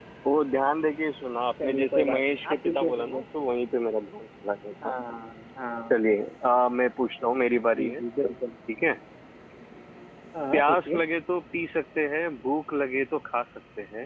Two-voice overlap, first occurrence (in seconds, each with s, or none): 1.6 s